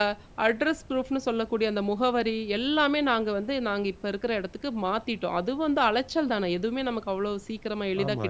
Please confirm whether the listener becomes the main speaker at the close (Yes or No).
Yes